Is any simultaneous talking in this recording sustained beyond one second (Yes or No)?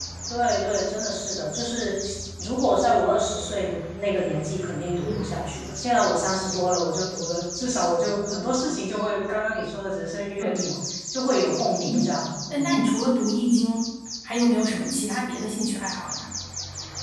No